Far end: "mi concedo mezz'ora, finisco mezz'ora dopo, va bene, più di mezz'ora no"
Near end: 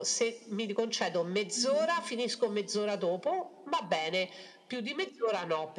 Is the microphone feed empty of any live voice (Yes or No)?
No